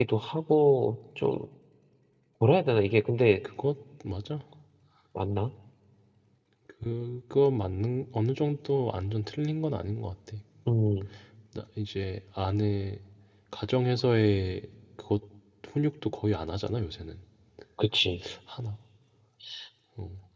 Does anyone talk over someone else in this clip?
No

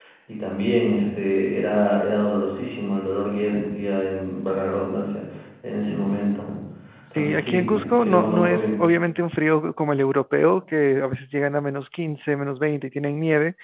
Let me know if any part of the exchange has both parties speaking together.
Yes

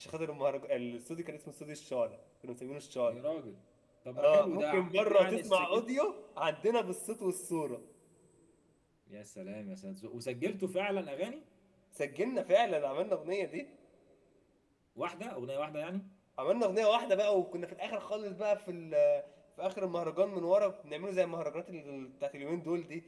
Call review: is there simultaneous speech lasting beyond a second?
Yes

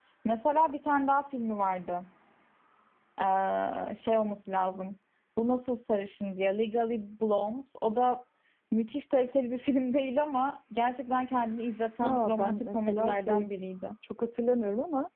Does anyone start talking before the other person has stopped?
Yes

